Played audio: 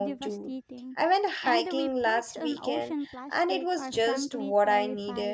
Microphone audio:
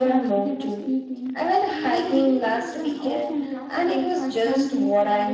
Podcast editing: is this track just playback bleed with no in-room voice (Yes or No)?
No